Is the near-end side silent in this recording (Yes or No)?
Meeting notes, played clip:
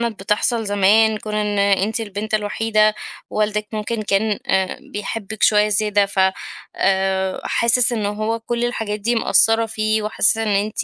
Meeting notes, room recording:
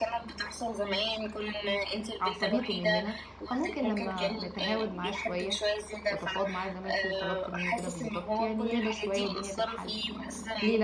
No